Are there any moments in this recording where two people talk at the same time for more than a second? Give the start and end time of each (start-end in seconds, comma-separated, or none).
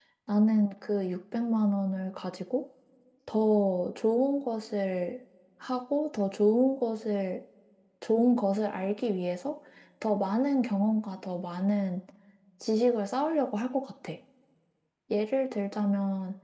none